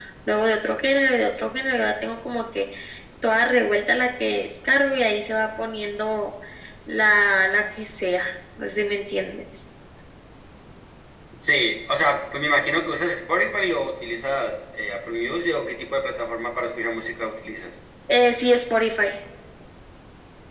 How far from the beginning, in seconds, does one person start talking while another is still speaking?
none

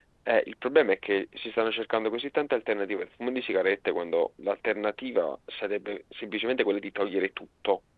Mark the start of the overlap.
none

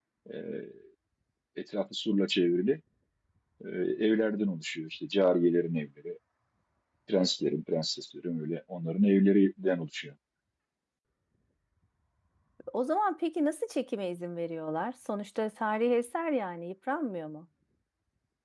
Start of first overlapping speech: none

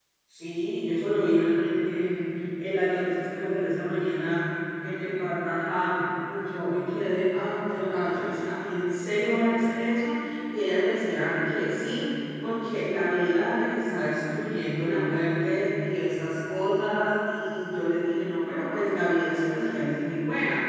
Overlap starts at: none

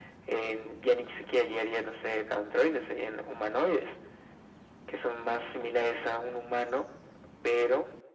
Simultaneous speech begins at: none

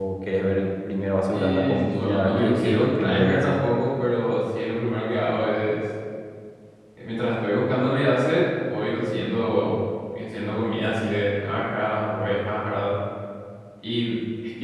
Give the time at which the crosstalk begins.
1 s

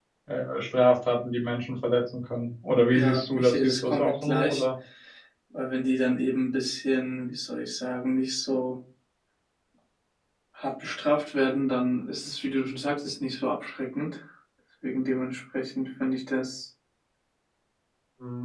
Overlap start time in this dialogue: 3 s

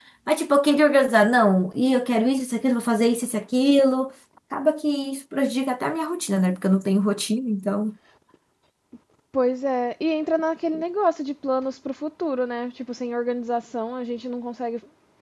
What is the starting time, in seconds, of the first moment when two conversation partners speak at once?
none

